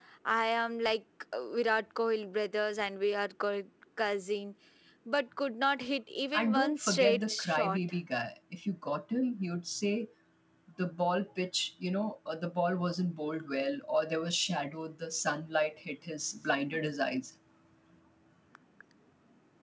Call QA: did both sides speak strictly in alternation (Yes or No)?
No